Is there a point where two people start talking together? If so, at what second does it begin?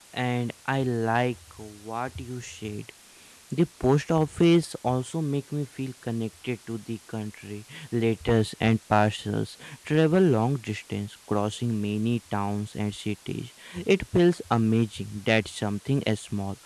none

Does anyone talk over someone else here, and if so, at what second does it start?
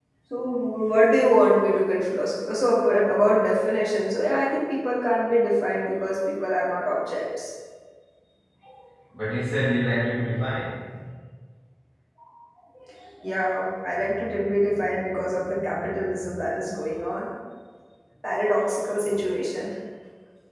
none

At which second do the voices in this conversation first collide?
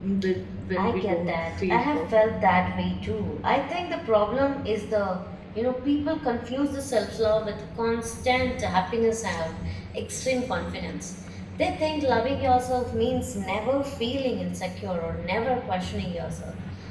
1 s

